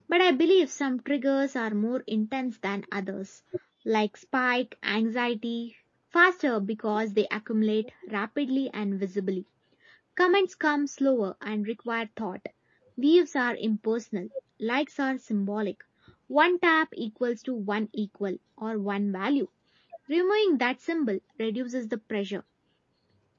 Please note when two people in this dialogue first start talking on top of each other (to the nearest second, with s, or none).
none